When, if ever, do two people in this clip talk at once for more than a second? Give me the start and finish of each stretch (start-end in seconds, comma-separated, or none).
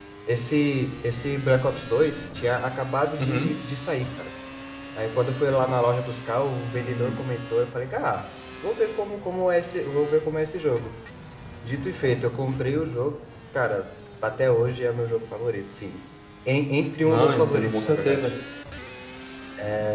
17.0-18.3